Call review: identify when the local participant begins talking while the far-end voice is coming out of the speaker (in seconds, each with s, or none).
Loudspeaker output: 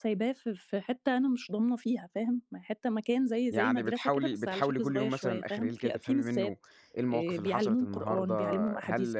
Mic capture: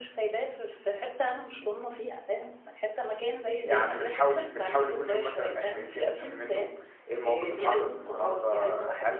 none